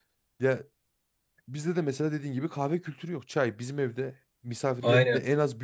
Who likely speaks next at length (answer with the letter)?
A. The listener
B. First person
B